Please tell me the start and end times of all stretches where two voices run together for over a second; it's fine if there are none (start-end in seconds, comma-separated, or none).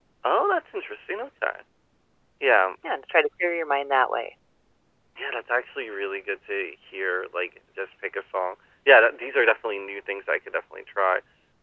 none